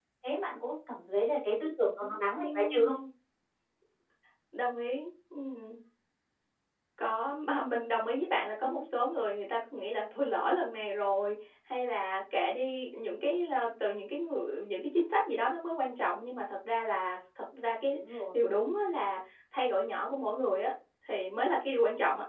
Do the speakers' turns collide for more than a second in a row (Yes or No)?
No